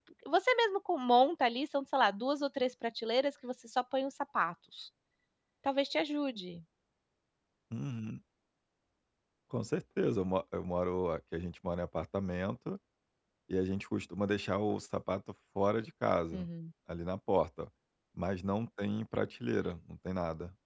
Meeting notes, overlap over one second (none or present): none